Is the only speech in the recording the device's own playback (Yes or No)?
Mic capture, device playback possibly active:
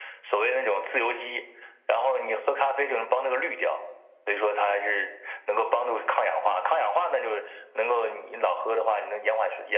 Yes